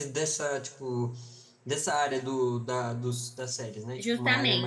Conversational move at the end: taking over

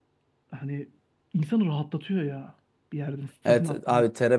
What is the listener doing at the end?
taking over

